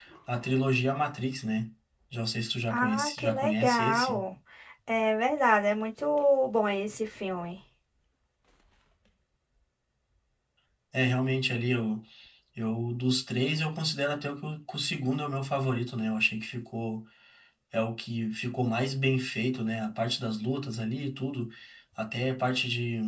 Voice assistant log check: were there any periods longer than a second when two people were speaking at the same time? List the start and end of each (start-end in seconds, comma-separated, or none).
2.7-4.2